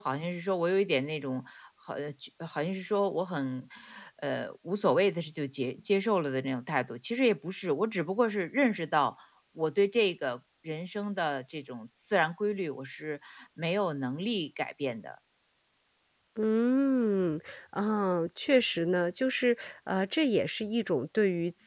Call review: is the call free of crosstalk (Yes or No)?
Yes